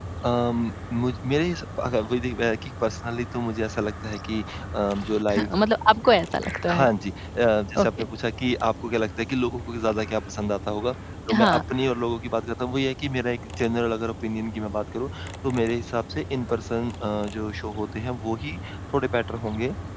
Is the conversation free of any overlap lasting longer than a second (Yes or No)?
Yes